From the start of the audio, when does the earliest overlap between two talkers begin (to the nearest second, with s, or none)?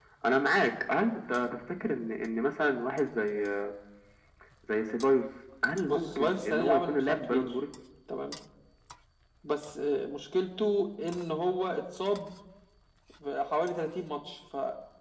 6 s